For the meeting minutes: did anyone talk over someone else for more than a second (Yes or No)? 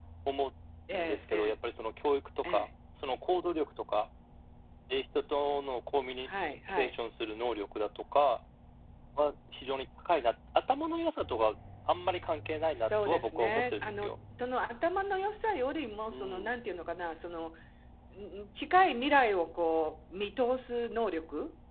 Yes